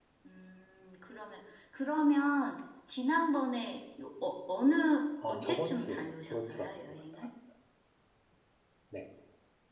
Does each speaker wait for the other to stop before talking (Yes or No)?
No